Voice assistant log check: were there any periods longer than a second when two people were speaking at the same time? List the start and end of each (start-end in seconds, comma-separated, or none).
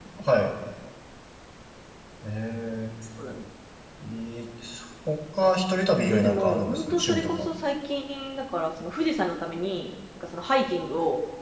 6.0-7.5